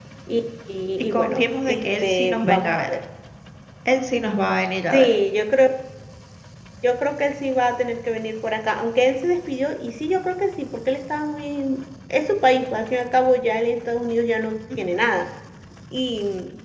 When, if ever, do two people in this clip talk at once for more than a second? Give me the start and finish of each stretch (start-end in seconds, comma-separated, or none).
1.1-2.9